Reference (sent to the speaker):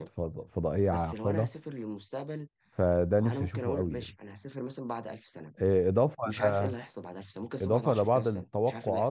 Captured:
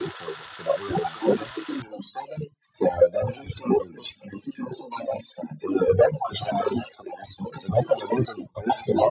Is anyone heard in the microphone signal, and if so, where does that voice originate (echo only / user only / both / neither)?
echo only